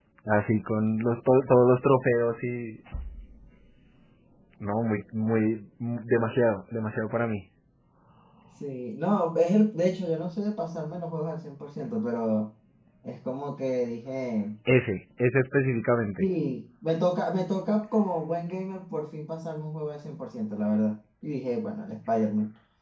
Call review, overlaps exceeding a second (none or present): none